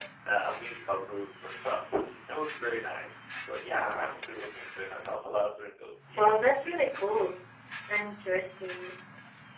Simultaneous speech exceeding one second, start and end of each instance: none

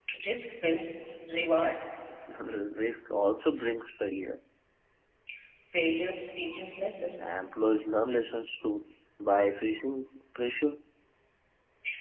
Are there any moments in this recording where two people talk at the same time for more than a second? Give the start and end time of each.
none

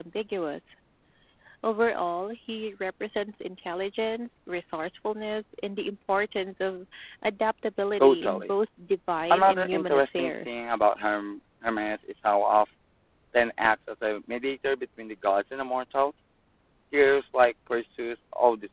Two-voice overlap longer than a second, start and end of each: 9.3-10.6

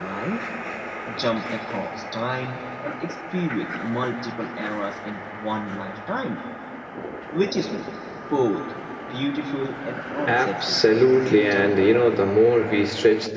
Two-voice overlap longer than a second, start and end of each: 10.3-11.8

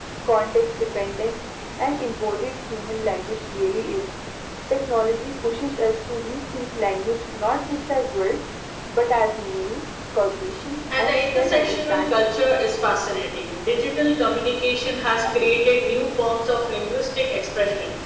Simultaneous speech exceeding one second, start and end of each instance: 11.0-12.3

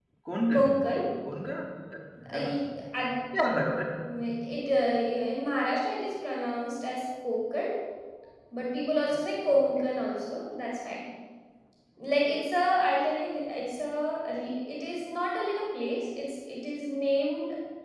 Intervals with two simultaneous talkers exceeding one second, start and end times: none

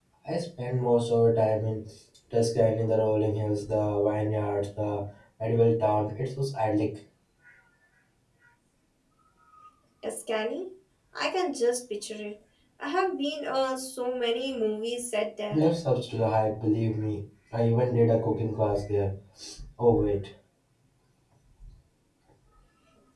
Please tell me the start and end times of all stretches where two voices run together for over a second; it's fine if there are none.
none

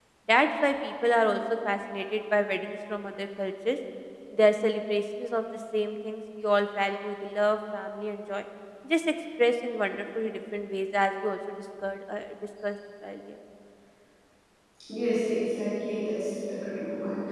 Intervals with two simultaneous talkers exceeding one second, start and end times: none

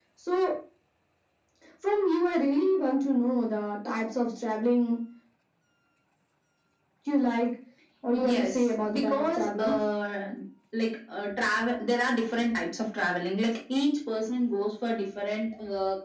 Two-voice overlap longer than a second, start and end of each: 8.1-9.8

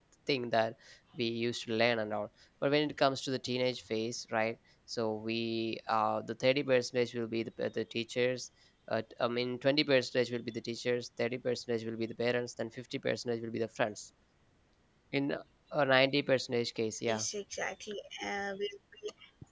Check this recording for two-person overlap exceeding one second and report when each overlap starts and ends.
none

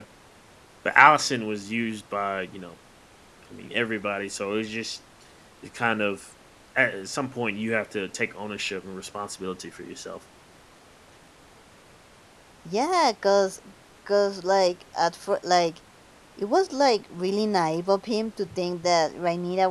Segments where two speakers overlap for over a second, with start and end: none

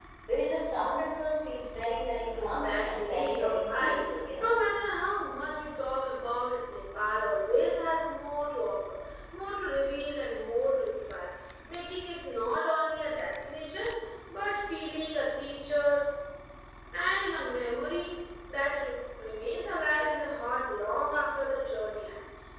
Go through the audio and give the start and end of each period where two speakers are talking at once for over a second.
2.4-4.0

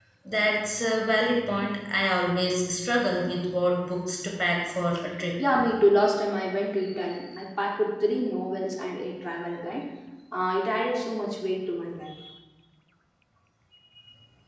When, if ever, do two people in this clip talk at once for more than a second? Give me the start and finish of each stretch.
none

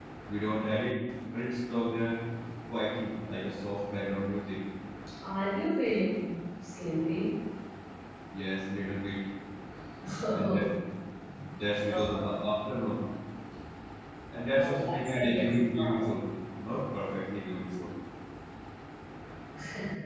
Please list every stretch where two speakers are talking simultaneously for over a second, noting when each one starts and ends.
14.6-16.1

